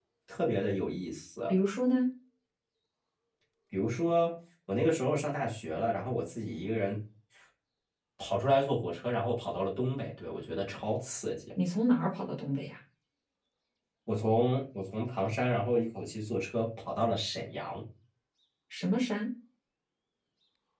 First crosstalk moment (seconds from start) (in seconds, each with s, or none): none